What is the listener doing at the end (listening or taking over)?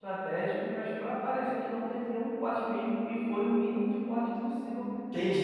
taking over